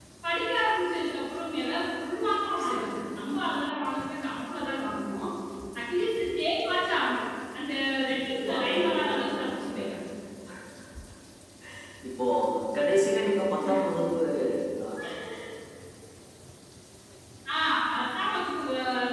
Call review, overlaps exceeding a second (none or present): present